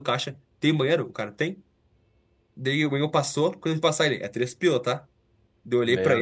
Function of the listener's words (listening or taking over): listening